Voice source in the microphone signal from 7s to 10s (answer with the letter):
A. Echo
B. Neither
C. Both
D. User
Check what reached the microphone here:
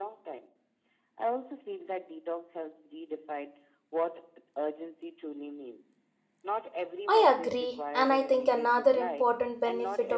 C